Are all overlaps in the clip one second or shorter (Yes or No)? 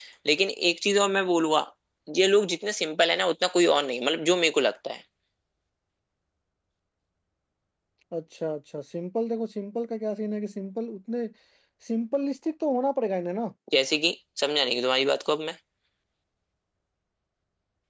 Yes